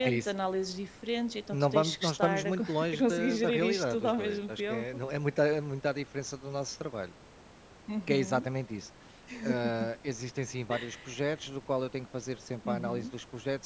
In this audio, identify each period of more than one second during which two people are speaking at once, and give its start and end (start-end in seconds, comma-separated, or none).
1.5-4.8